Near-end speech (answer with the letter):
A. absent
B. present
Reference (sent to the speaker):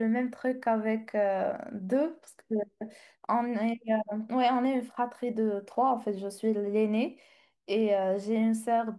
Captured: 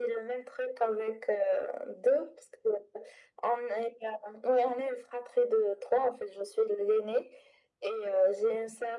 A